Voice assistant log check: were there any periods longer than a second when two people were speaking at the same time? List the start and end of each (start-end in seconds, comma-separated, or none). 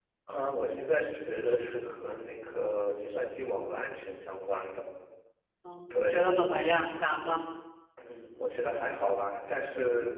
none